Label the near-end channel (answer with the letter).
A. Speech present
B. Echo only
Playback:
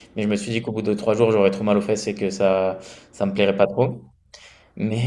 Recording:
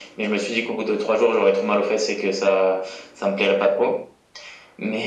B